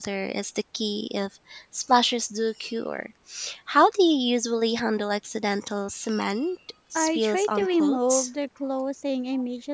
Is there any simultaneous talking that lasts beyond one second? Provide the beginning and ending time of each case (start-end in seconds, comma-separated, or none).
7.0-8.3